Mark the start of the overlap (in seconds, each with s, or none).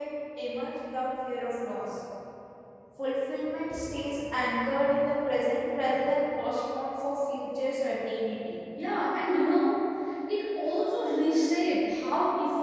none